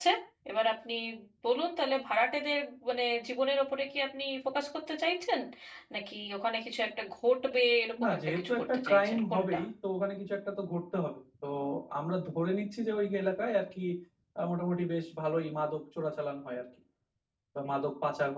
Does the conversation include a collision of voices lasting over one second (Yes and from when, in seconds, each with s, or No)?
Yes, from 8.0 s